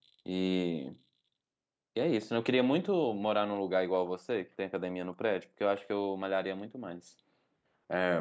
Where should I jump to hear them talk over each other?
none

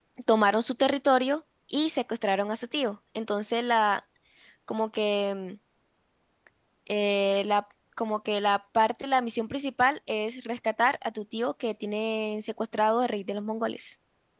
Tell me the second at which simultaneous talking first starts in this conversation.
none

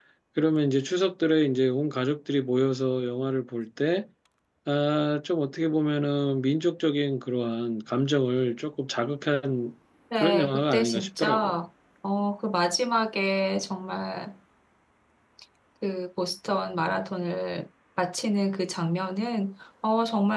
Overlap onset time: 10 s

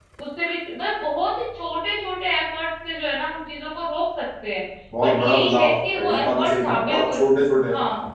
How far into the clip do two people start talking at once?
5 s

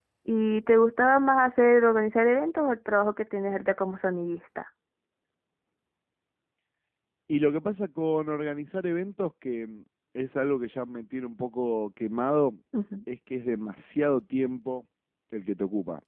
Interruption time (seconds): none

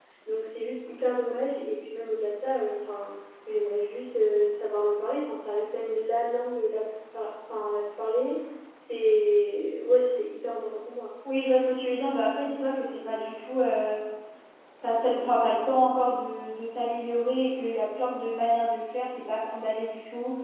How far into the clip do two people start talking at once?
none

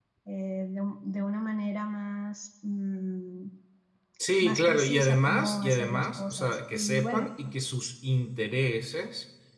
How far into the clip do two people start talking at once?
4 s

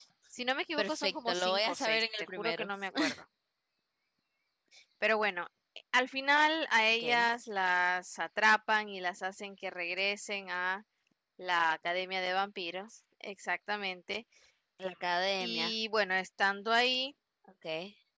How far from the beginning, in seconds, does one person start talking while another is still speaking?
1 s

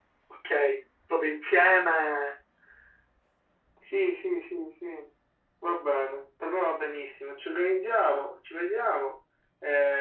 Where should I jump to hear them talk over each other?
none

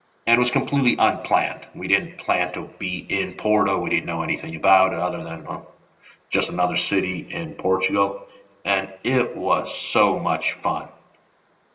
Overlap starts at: none

